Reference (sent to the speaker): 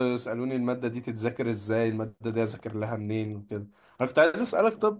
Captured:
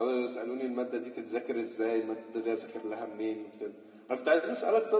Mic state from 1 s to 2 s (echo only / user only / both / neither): echo only